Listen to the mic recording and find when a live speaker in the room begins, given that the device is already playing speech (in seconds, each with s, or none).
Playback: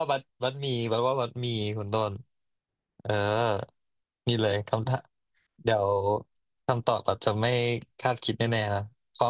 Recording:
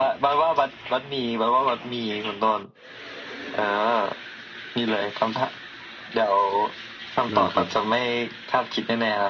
7.3 s